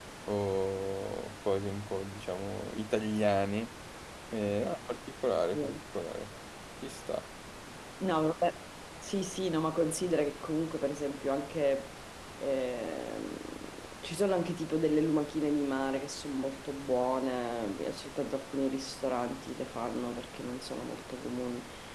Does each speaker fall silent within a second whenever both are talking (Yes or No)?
Yes